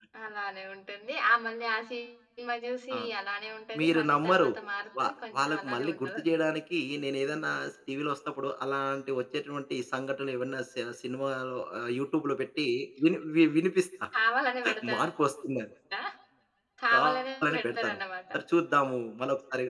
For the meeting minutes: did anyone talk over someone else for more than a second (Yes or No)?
Yes